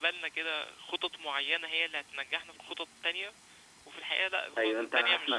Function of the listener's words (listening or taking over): taking over